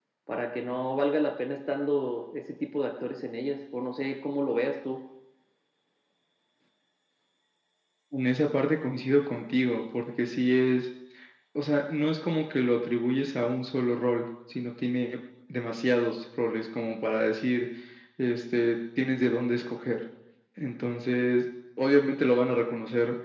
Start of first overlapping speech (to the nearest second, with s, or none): none